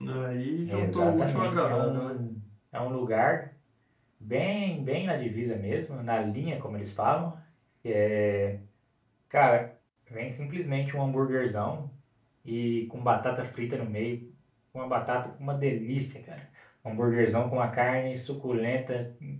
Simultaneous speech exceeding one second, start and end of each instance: 0.7-2.1

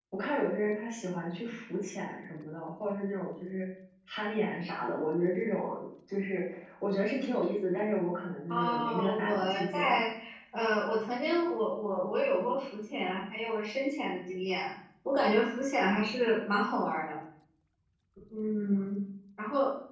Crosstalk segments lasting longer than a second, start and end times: 8.5-9.9

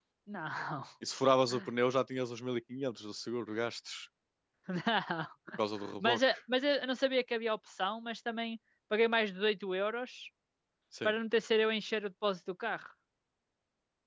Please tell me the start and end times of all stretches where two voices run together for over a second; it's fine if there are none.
none

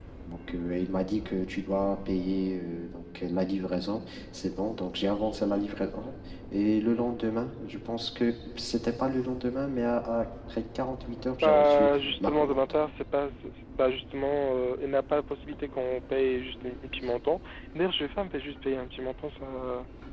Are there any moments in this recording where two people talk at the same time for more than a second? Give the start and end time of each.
11.4-12.6

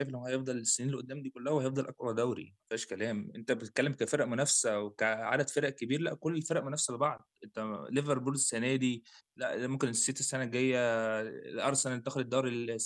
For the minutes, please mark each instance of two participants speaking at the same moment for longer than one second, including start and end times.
none

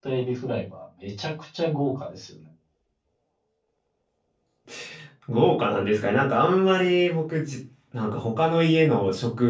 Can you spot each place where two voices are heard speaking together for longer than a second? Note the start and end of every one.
none

